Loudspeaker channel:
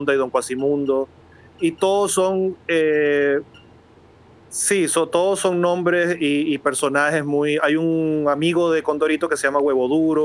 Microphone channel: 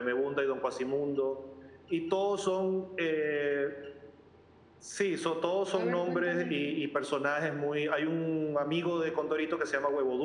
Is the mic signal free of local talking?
No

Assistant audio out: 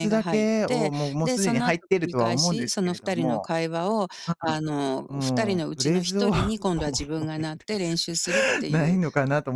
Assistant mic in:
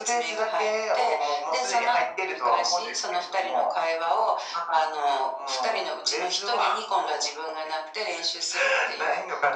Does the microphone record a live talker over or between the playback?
No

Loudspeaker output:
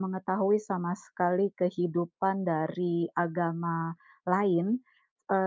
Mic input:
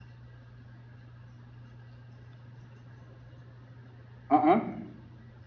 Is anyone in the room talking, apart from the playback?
Yes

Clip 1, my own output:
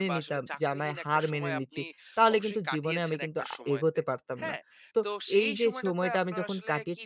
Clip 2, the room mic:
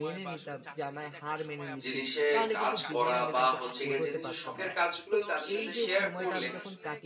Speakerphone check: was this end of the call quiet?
No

